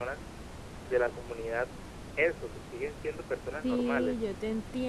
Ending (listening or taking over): taking over